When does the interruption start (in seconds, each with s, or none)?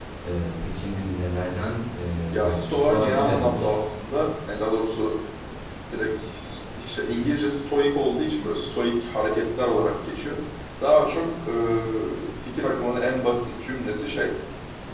2.3 s